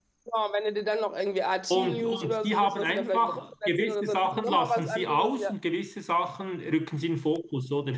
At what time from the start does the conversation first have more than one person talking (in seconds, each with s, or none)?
1.7 s